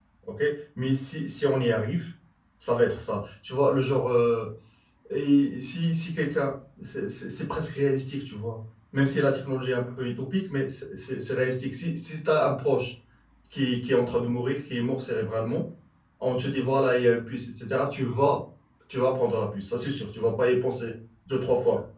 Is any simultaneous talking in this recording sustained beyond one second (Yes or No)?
No